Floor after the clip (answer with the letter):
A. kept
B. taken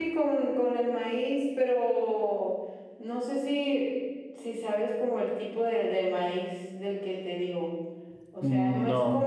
A